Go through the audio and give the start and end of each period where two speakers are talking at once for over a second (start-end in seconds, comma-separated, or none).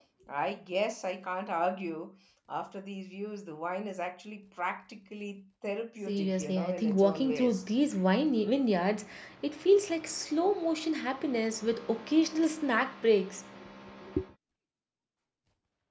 6.1-7.6